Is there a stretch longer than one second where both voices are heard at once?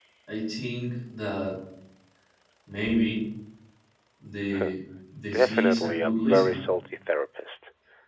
Yes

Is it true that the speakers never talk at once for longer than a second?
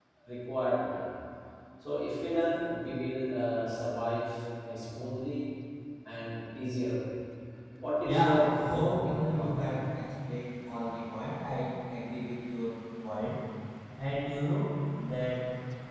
No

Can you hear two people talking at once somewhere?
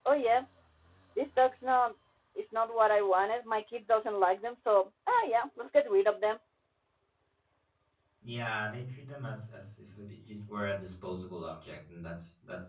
No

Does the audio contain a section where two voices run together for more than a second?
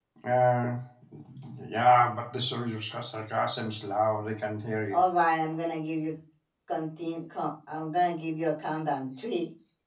No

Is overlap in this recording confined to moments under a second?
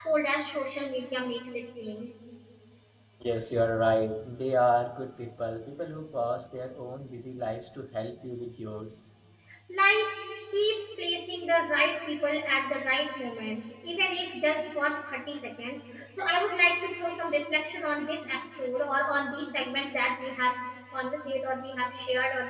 Yes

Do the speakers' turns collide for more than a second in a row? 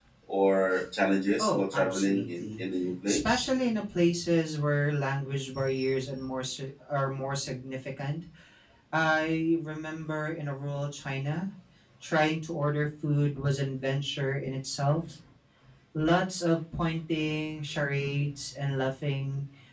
Yes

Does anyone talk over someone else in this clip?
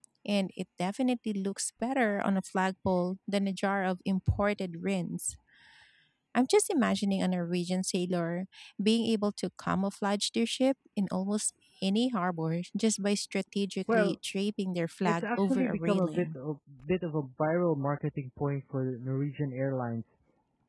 Yes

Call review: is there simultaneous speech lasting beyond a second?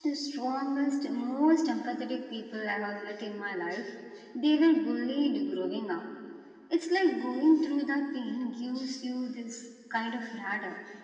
No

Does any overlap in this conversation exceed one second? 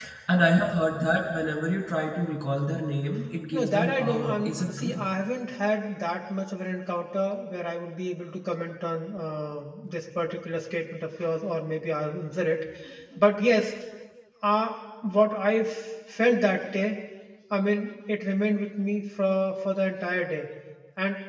Yes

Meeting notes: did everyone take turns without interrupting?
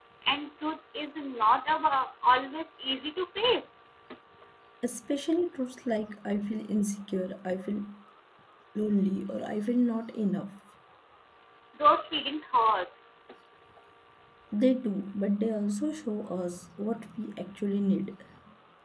Yes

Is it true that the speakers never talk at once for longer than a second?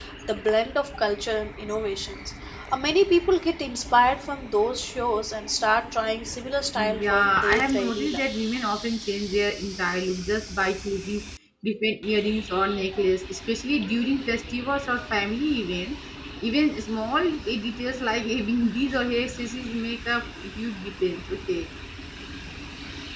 No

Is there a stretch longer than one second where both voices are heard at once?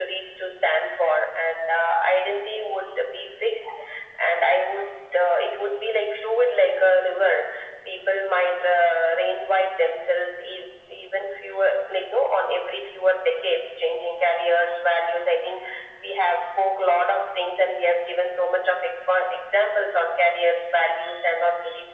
No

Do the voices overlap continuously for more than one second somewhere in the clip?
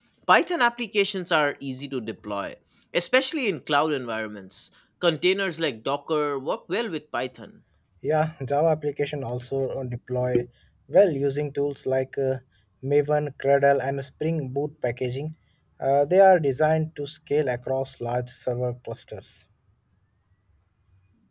No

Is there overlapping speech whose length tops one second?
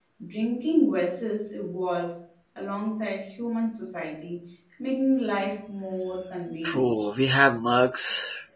No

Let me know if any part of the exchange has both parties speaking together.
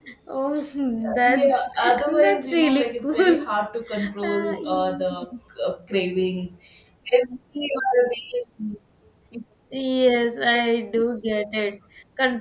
Yes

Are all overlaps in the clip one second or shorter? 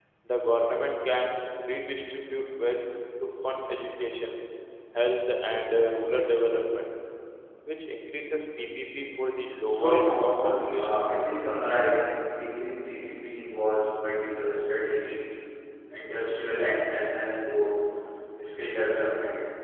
No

